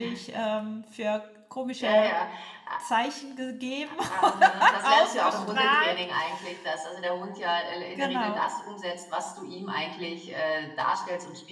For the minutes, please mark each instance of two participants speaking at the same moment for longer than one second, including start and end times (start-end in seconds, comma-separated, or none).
4.1-6.0